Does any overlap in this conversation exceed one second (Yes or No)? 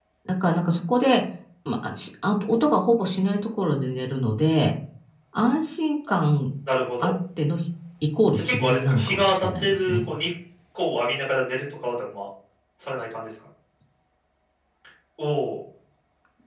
Yes